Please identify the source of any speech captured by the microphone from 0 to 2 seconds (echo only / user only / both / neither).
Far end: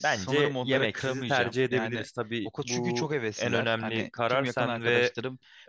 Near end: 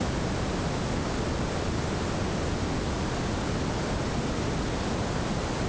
neither